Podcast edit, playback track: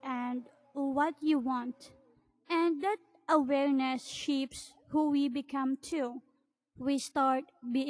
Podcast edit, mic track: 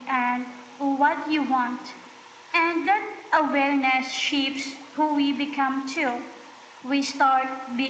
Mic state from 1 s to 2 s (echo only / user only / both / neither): echo only